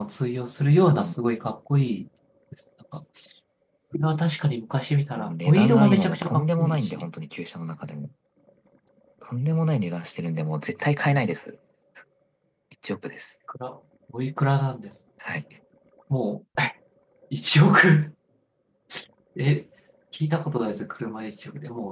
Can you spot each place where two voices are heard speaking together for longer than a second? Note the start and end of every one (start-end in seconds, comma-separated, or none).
5.2-7.0